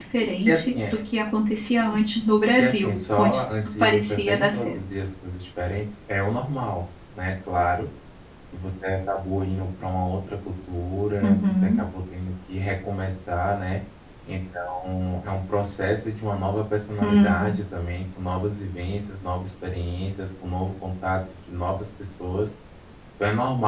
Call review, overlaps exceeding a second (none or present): present